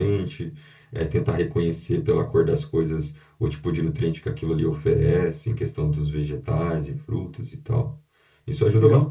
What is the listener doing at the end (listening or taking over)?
listening